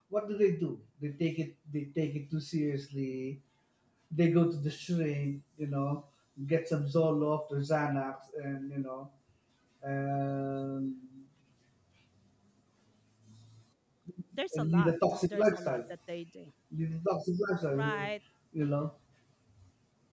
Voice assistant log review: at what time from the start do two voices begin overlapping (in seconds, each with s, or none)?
14.5 s